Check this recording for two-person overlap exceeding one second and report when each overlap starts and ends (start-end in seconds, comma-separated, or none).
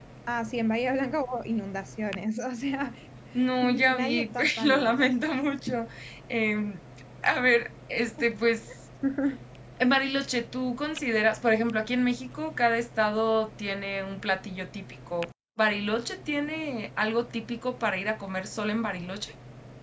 3.6-5.1